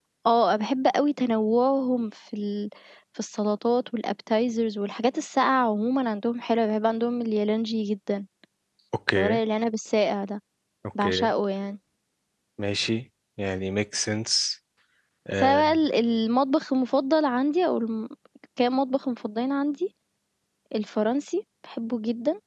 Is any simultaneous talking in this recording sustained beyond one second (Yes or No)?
No